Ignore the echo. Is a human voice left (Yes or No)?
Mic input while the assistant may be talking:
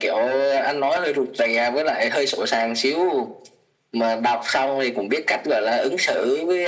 No